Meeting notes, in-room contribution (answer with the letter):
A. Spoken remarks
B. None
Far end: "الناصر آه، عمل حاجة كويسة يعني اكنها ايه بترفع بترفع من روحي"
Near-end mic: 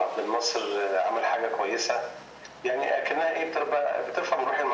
B